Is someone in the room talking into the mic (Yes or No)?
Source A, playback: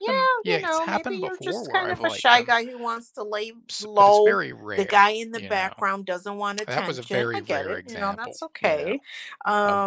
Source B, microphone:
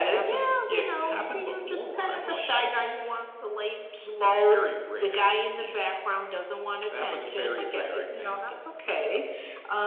No